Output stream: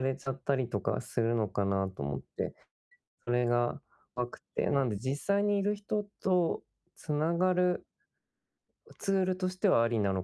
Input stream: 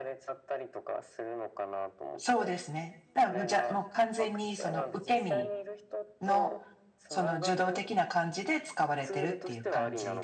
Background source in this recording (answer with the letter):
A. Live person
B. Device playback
B